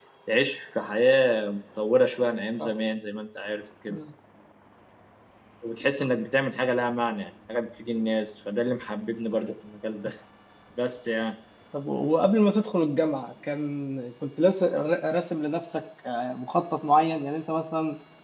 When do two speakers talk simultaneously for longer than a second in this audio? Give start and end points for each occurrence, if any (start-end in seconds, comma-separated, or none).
none